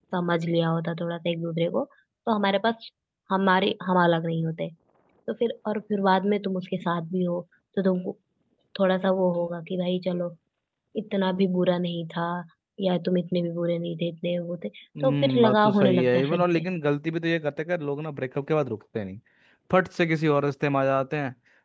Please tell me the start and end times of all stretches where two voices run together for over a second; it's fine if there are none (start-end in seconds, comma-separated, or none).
15.0-16.6